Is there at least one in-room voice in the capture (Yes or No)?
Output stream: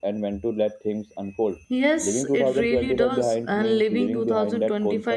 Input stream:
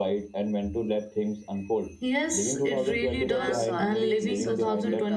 Yes